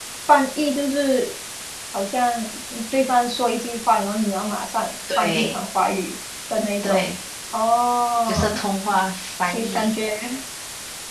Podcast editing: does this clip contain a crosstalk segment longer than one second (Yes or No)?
No